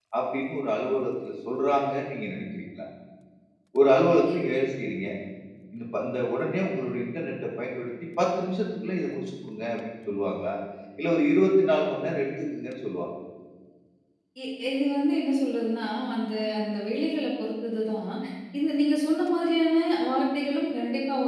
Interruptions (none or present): none